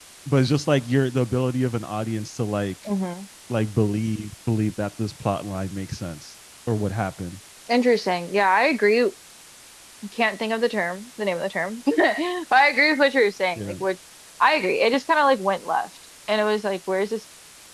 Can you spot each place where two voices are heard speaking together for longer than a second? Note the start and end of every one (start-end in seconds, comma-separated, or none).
none